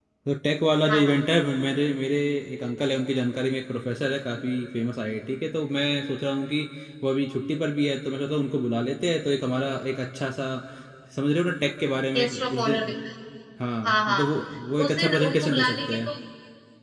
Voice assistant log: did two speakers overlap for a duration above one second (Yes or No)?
Yes